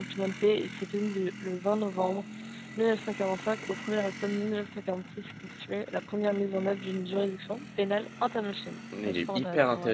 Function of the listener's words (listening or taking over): taking over